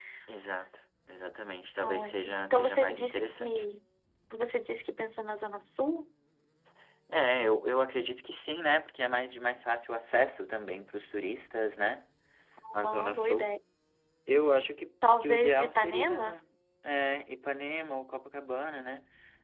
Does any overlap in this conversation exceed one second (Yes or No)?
Yes